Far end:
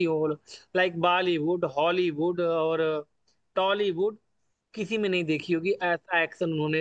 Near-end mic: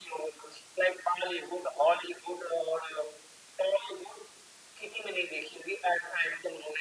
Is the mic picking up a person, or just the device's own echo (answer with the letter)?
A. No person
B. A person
A